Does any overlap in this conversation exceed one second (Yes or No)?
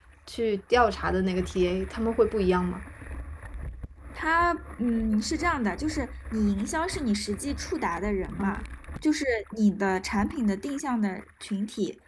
No